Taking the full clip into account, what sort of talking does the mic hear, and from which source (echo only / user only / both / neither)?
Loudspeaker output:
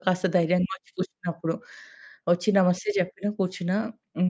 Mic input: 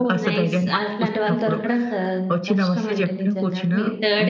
both